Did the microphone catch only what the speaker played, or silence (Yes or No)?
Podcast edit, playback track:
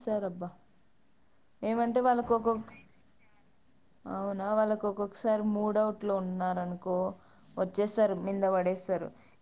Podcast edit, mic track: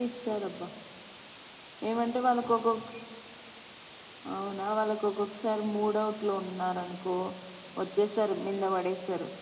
Yes